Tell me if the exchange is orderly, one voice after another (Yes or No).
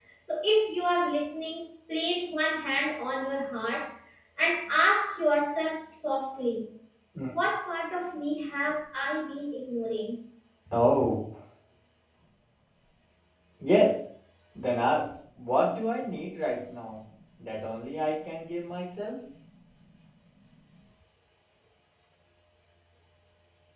Yes